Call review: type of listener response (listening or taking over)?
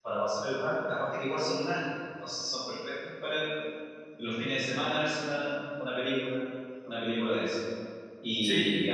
listening